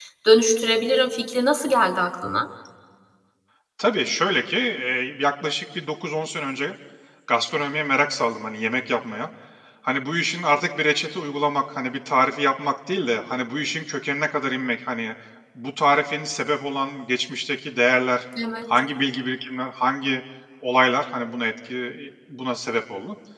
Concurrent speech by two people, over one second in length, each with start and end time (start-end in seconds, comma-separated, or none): none